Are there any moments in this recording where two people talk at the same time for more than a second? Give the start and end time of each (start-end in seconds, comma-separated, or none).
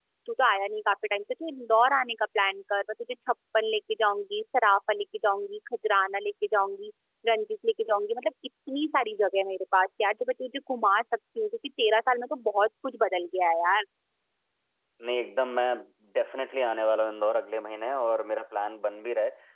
none